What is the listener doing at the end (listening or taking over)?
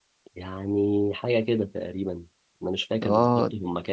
listening